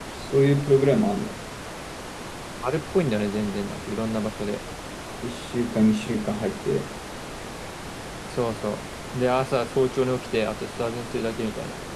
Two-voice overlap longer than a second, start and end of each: none

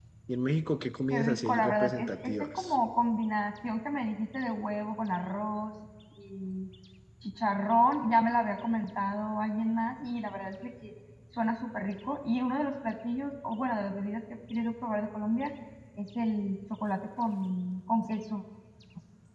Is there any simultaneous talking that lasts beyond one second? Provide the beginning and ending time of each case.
1.1-2.8

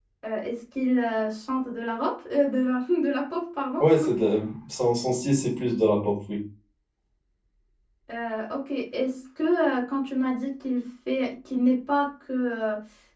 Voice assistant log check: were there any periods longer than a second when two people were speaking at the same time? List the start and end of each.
none

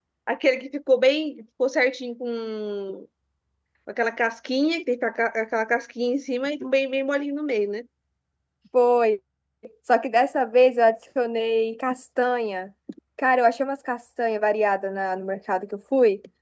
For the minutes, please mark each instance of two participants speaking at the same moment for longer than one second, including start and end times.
none

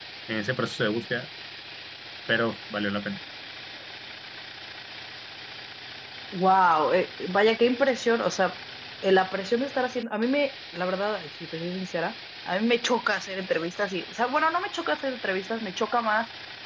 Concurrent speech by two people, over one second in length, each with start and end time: none

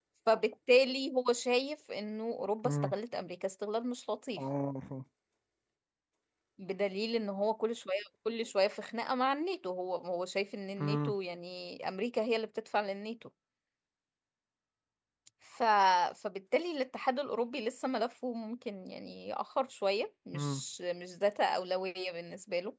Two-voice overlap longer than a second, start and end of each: none

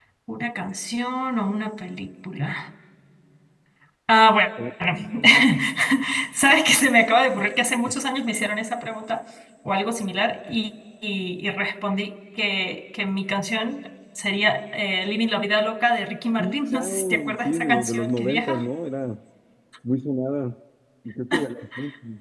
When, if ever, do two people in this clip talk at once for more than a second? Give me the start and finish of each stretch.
16.4-18.6

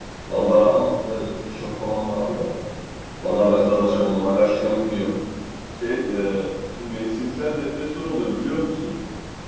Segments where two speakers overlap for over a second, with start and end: 3.2-5.1

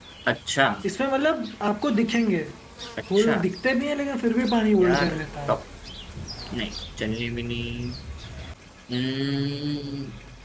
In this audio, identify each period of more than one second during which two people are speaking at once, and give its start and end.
none

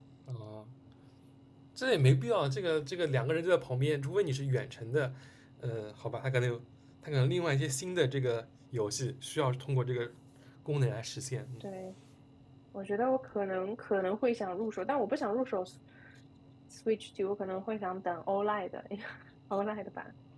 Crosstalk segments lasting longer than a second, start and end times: none

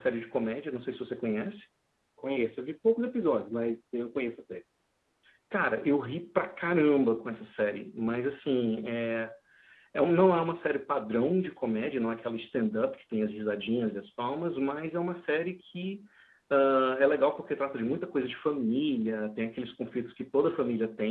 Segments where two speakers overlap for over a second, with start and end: none

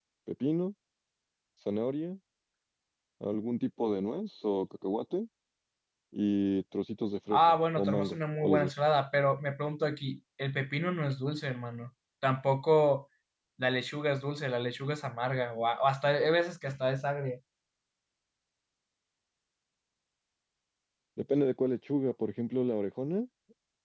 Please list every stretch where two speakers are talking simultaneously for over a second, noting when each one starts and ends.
7.3-8.8

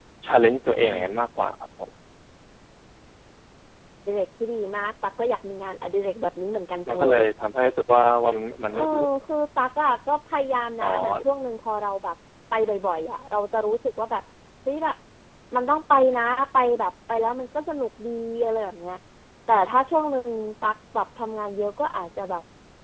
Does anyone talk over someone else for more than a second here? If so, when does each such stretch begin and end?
none

